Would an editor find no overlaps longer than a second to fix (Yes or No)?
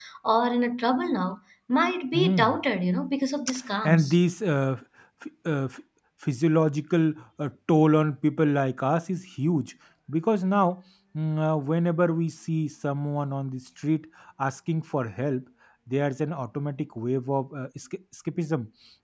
Yes